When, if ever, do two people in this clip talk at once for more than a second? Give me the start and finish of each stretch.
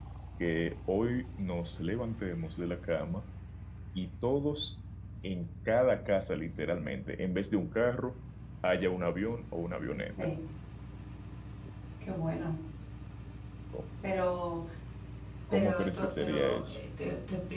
15.5-16.8

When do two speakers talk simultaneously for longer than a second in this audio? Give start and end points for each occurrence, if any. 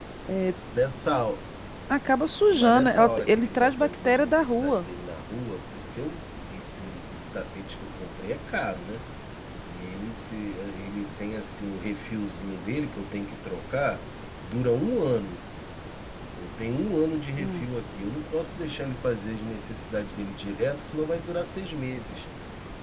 2.5-4.9

